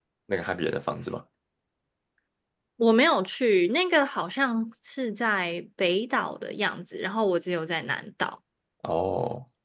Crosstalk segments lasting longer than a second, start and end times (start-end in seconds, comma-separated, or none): none